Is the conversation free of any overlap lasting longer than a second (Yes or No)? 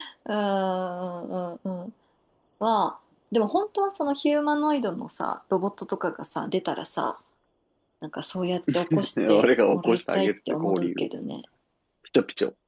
No